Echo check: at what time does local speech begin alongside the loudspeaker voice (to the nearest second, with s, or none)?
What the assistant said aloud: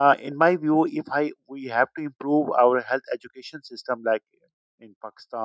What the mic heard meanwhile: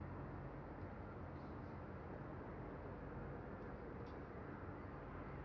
none